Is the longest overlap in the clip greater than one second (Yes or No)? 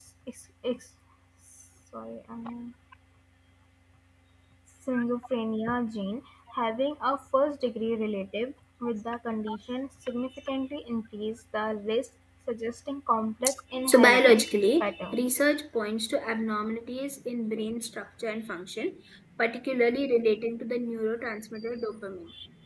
Yes